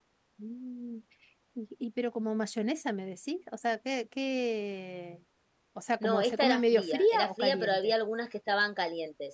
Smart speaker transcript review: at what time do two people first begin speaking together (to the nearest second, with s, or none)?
6 s